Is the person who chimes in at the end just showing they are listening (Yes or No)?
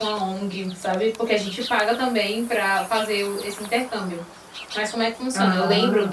Yes